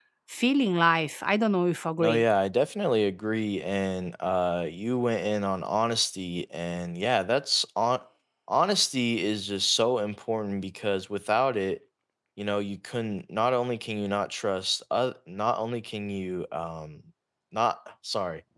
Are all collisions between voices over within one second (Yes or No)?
Yes